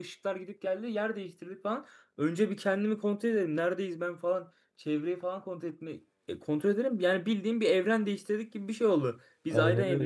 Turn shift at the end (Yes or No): No